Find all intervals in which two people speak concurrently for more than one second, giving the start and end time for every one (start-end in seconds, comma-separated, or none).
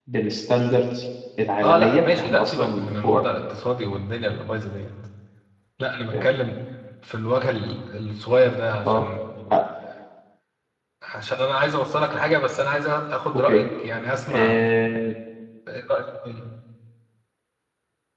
1.6-3.2